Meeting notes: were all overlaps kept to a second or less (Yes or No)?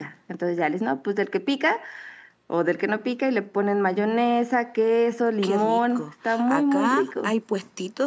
No